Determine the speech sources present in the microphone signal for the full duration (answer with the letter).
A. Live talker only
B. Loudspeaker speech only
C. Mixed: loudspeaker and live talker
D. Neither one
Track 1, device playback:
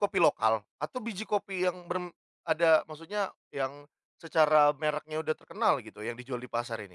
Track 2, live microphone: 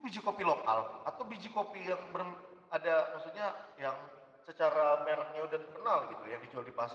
B